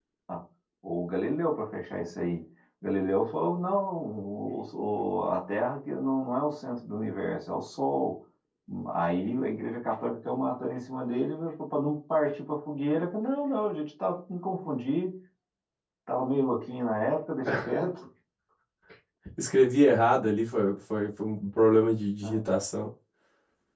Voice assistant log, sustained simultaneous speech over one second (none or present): none